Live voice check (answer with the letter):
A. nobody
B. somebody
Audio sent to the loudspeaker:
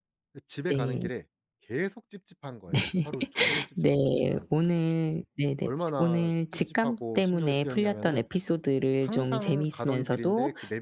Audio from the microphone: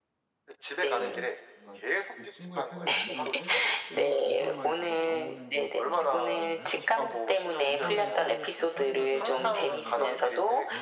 B